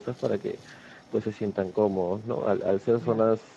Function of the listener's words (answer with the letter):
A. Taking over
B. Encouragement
B